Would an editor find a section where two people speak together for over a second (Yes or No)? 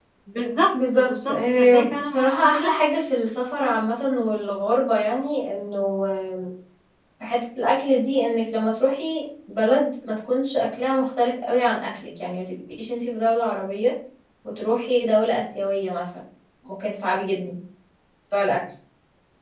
Yes